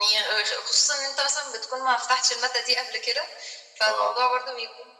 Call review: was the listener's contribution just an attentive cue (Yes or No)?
Yes